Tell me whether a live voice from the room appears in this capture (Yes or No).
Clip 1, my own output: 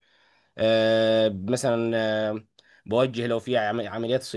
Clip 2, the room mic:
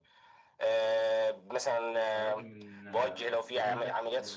Yes